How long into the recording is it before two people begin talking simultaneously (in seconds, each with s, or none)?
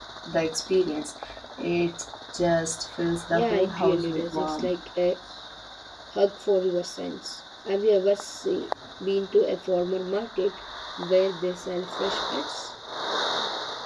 3.3 s